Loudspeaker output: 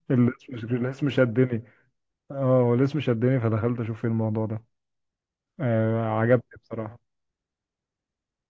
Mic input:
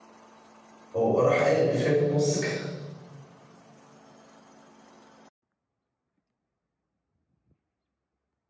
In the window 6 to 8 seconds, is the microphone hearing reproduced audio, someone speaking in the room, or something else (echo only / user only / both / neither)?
neither